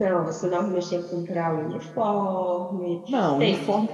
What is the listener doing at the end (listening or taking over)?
taking over